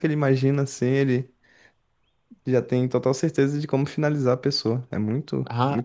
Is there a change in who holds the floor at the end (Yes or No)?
Yes